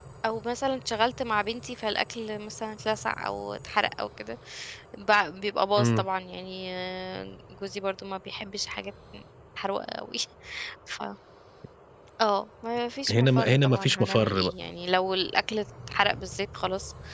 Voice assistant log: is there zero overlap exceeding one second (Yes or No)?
No